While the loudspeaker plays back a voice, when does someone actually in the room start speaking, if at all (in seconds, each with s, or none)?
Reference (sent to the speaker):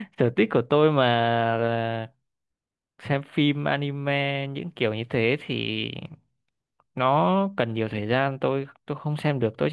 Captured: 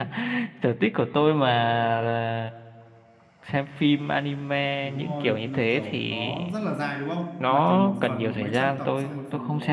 4.8 s